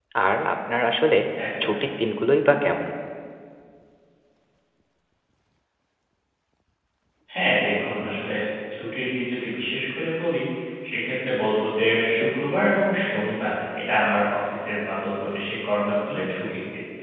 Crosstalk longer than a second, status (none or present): none